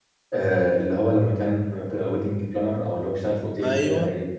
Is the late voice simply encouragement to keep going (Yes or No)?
No